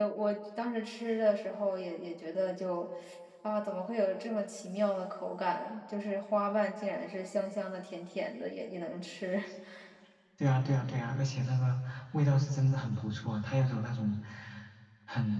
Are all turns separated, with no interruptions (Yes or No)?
Yes